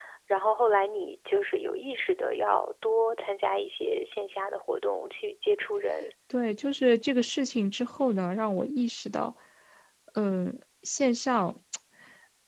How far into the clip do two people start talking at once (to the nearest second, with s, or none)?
none